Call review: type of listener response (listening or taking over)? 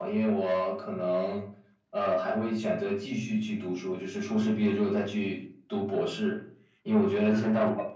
listening